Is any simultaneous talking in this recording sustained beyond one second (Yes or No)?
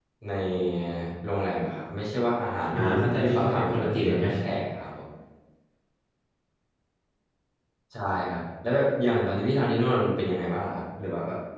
Yes